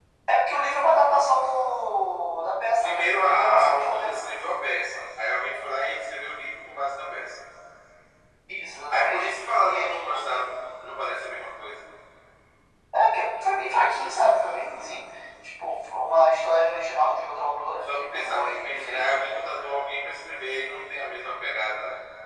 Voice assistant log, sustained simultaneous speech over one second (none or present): present